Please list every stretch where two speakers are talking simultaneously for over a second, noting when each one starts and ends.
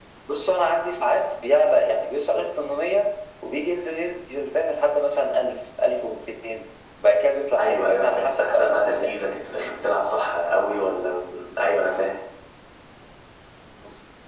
7.6-9.2

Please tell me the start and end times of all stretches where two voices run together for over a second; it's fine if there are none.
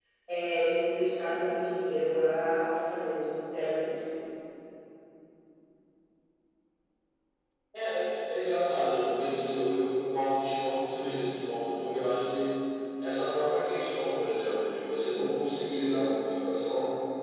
none

